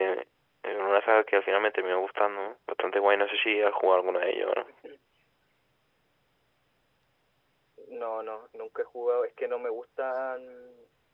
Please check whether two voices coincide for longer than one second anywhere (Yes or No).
No